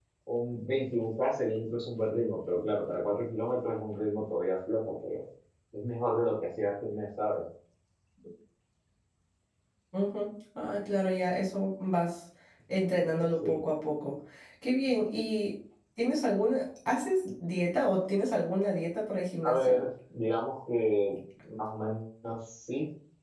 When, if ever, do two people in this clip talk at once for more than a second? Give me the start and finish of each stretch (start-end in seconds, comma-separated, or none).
none